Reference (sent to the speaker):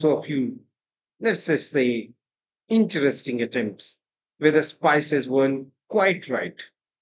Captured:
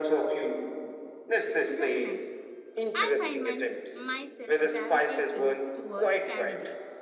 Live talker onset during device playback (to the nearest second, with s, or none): 2 s